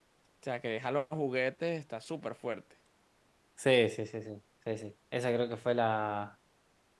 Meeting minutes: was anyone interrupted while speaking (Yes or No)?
No